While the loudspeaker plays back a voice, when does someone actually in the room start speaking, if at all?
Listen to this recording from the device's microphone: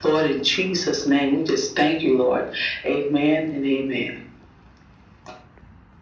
none

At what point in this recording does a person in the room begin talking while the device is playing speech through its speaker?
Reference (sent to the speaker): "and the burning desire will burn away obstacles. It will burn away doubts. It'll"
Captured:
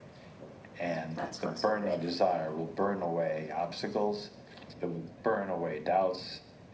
0.8 s

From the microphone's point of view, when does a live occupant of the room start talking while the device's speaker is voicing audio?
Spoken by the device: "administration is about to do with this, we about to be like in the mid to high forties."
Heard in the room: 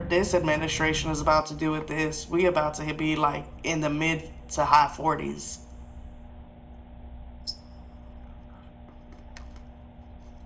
none

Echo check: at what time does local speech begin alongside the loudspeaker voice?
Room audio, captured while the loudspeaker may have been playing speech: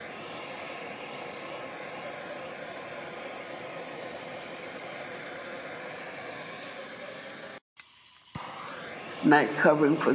9.2 s

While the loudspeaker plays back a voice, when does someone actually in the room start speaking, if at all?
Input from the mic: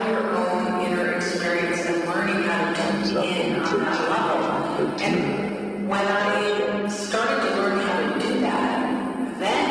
2.8 s

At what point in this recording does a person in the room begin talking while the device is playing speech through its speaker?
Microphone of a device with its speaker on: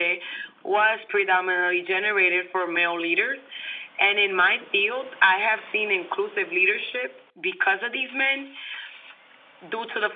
none

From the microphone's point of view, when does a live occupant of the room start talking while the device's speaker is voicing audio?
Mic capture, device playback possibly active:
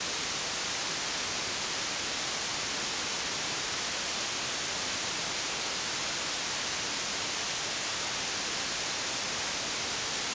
none

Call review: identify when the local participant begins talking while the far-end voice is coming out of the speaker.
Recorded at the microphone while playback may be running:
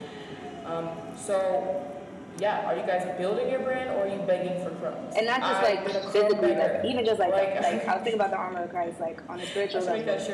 5.2 s

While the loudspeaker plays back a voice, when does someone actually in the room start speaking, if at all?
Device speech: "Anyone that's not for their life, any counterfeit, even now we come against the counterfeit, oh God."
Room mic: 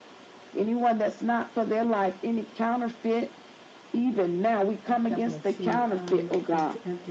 4.8 s

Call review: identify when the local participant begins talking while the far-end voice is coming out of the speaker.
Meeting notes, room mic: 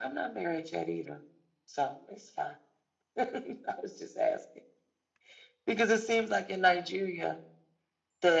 none

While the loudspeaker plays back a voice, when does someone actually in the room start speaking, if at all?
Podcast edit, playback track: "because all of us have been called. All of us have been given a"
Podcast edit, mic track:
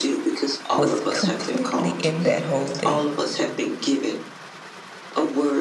0.8 s

